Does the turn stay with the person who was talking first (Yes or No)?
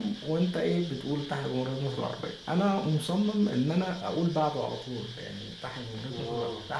Yes